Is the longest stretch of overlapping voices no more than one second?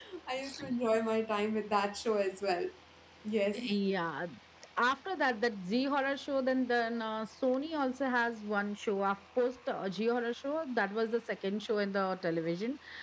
Yes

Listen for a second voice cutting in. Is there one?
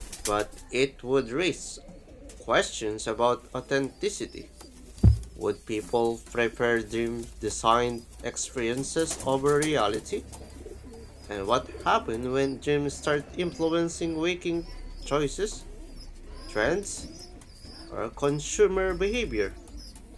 No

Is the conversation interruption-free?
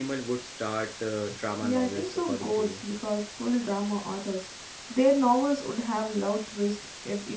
No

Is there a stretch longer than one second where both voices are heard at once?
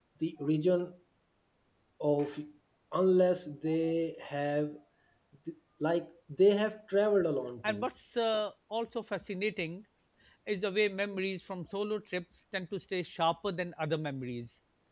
No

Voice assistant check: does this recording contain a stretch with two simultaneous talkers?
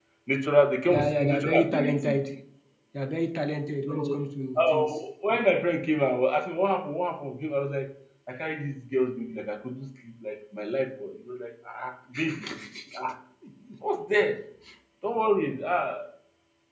Yes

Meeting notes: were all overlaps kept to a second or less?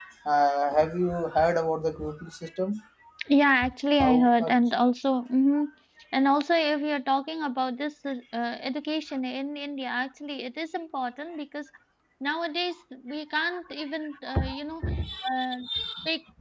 Yes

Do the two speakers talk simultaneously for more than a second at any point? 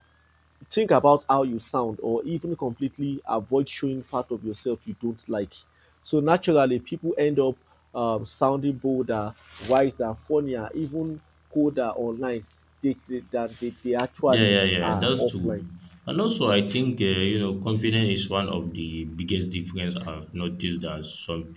Yes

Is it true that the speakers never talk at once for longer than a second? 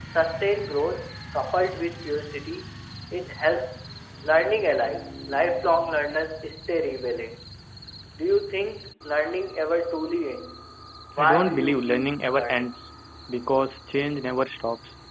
No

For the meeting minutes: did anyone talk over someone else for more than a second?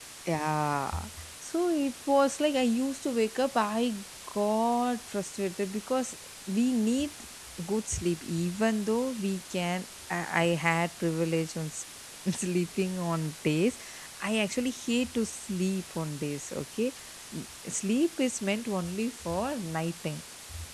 No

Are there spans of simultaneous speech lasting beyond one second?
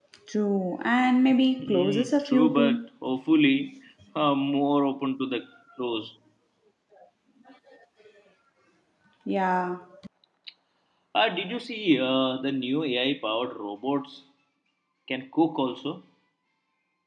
Yes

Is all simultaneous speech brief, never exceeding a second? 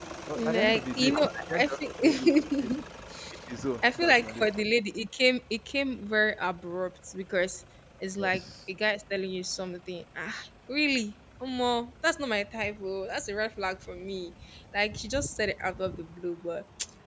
No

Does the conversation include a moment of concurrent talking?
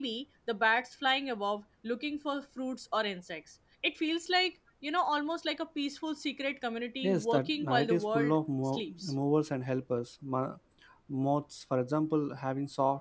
Yes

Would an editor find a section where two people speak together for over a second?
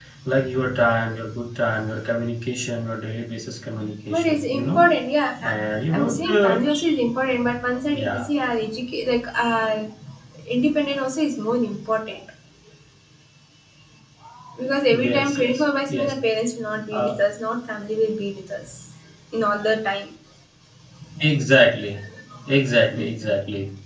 Yes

